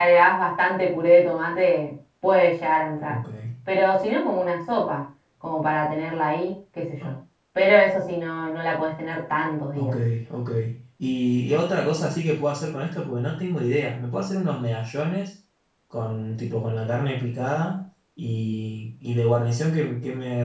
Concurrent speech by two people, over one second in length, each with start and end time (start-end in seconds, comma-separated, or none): none